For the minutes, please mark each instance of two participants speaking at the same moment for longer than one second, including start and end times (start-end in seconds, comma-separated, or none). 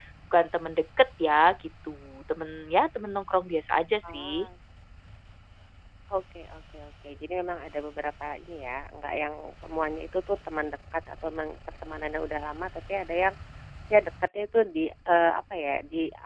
none